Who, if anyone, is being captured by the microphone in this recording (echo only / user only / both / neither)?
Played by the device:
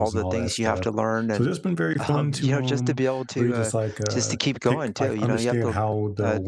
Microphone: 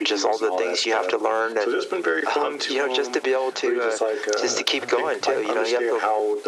both